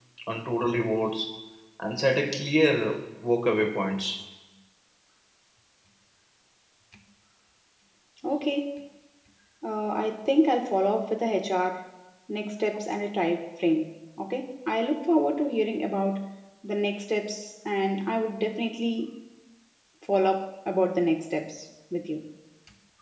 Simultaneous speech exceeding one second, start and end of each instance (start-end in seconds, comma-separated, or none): none